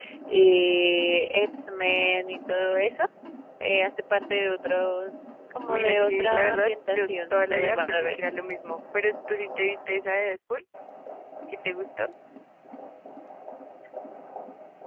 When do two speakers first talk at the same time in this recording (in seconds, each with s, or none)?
5.6 s